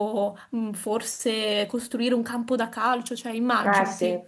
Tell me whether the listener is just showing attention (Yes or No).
No